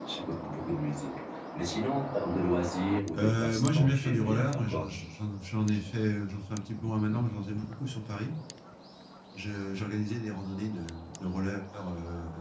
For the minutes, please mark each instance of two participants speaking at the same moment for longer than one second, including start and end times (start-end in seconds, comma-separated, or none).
3.2-4.9